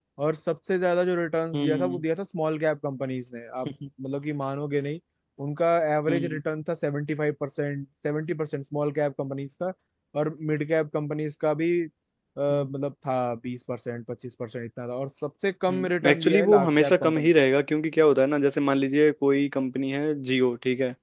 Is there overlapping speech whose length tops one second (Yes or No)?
Yes